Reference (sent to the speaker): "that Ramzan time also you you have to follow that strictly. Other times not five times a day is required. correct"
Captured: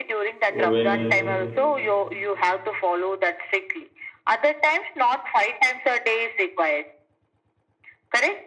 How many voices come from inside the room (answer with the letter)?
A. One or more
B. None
A